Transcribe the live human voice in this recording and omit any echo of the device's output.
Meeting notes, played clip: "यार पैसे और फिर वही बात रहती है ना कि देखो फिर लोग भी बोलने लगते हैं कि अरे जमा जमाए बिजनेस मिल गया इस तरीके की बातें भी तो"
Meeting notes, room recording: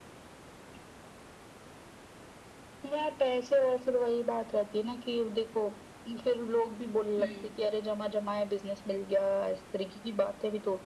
हम्म,

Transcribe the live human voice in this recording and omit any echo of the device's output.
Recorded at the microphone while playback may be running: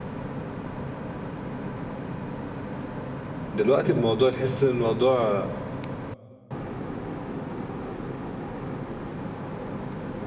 دلوقتي الموضوع تحس ان الموضوع

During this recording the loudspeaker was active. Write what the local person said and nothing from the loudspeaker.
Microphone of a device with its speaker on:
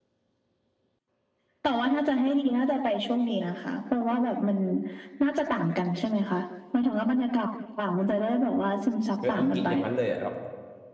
เอออังกฤษอย่างนั้นเลยอ่ะแบบ

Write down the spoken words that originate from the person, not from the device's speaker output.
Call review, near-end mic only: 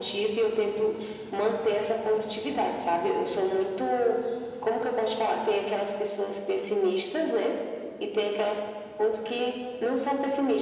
none

